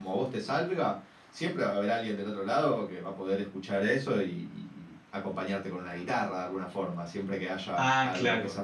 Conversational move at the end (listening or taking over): listening